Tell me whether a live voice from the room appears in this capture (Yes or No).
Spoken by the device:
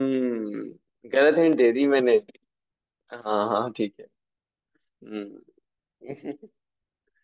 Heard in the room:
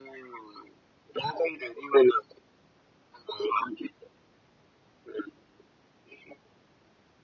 No